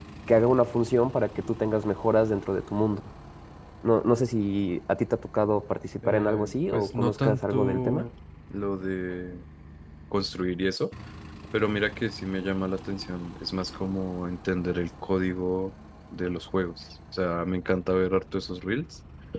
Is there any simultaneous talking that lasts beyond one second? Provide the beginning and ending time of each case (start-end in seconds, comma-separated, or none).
6.0-8.0